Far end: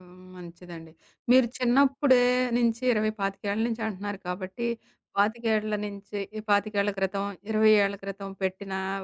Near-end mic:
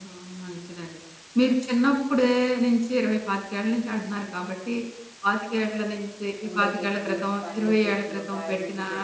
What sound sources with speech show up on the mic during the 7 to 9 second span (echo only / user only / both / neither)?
both